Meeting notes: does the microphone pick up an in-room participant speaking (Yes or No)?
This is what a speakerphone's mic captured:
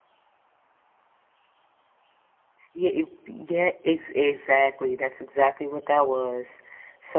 Yes